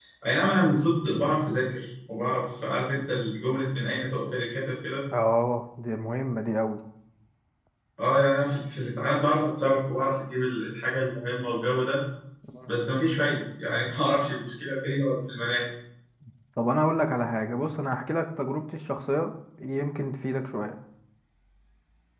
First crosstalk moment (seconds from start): none

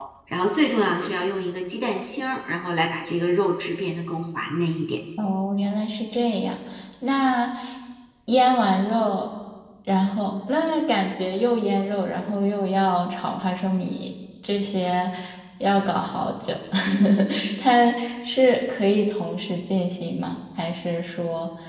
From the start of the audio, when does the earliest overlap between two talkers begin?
none

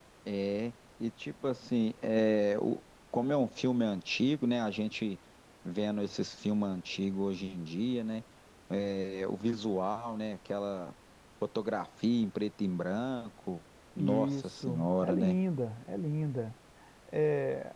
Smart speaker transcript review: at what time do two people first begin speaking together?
14 s

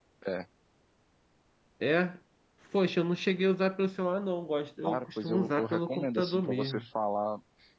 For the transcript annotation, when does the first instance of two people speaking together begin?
5 s

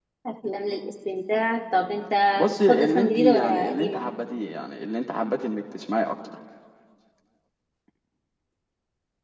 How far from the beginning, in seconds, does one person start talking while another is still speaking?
3 s

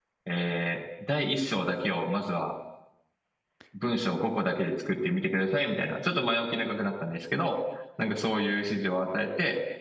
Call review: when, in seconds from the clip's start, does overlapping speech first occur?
none

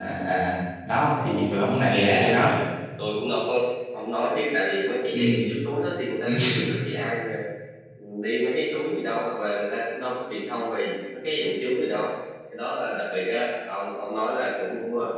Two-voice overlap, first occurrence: 1 s

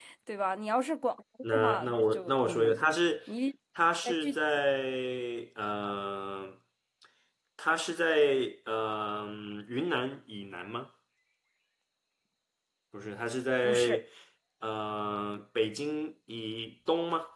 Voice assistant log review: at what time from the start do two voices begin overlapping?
2 s

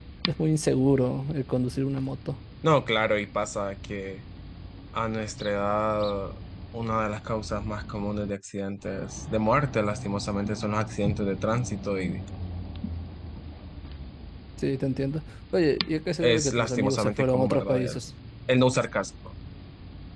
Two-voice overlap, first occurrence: 16 s

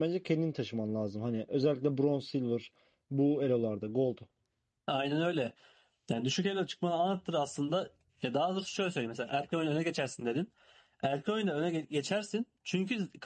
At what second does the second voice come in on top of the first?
none

